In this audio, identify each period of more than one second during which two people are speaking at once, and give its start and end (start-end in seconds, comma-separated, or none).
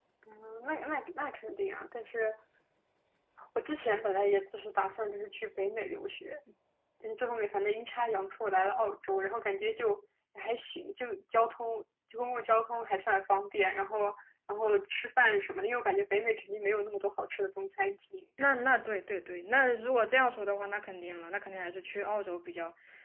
none